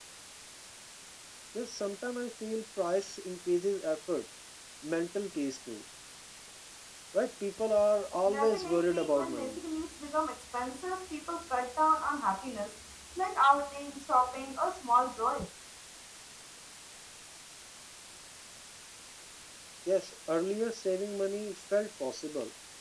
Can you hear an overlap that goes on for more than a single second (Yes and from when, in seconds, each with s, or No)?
Yes, from 8.3 s